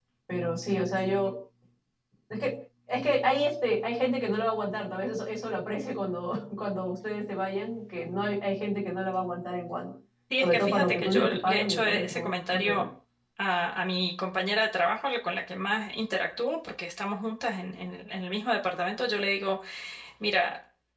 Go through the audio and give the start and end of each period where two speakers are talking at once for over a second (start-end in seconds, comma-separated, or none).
10.4-12.8